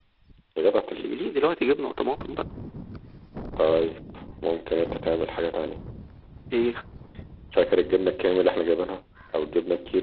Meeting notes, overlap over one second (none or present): none